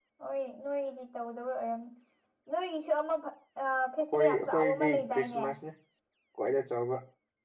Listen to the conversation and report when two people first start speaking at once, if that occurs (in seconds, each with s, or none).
4.1 s